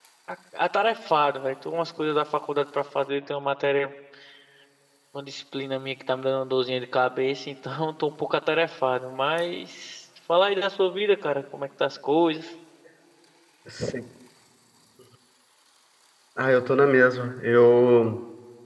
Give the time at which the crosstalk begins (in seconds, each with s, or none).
none